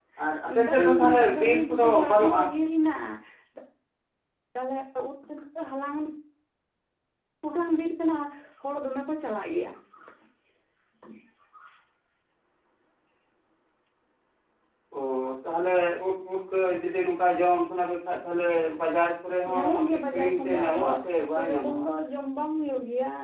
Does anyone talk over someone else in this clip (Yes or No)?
Yes